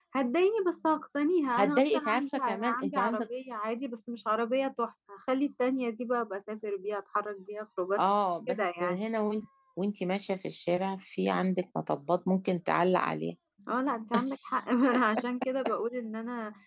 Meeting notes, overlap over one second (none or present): present